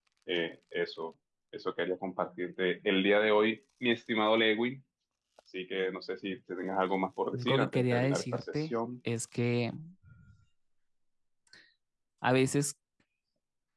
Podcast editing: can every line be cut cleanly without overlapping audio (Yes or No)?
No